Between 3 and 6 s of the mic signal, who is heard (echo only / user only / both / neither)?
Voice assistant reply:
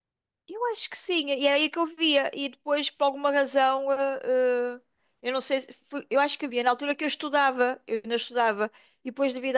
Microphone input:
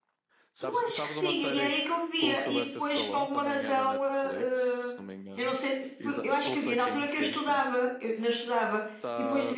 both